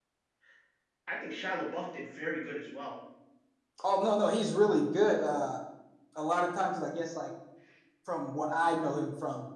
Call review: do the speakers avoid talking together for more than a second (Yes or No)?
Yes